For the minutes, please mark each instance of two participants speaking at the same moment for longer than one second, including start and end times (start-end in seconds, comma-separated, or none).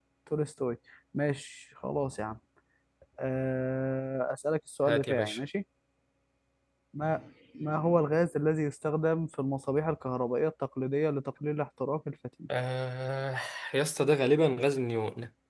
none